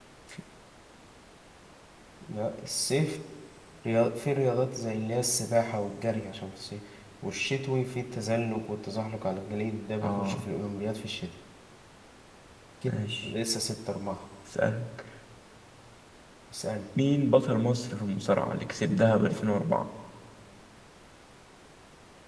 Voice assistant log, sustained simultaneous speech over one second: none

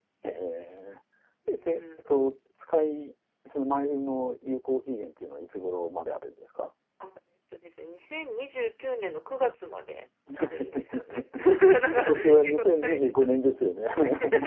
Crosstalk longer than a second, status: present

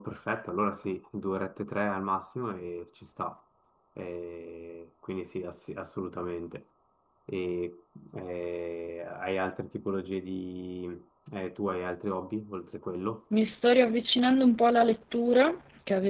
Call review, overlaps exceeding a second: none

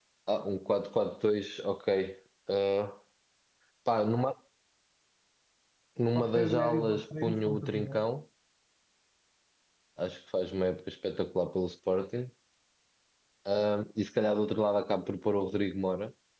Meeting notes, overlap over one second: present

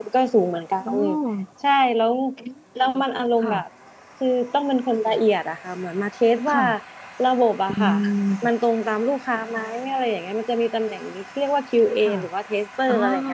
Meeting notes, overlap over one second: none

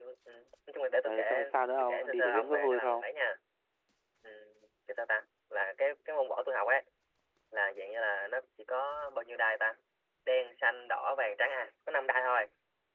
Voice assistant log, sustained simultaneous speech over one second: present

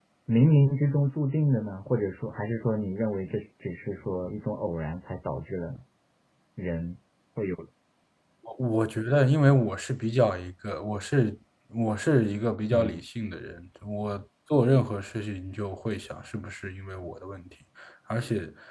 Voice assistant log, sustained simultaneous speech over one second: none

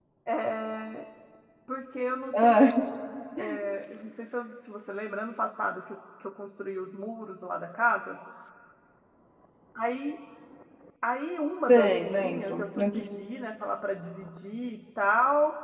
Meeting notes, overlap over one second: present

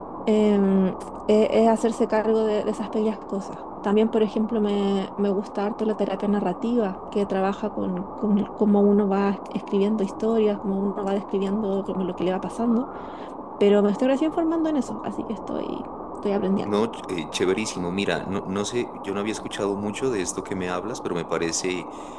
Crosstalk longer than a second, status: none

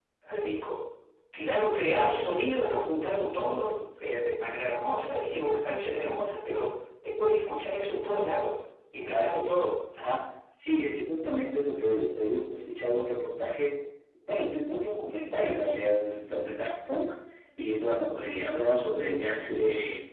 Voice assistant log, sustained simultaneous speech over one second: none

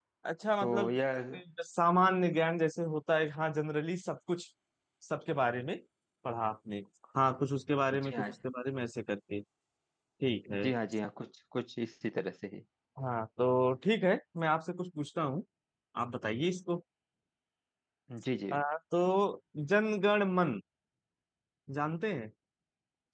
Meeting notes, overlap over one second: none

